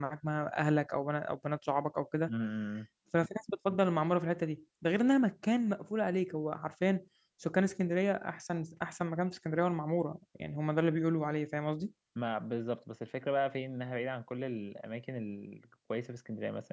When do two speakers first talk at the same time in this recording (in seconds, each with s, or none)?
none